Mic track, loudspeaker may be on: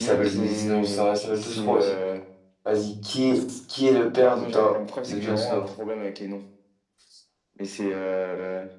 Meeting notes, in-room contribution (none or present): present